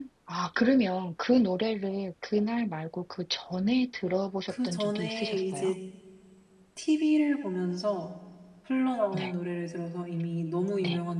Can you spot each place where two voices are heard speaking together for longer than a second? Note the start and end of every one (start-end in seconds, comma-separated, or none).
4.5-5.7